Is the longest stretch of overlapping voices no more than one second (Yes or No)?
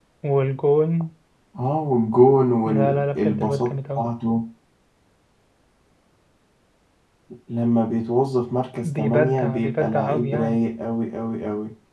No